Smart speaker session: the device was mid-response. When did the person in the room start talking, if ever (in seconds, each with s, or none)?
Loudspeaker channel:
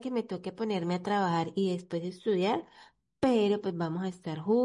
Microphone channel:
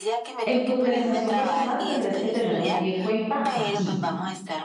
0.4 s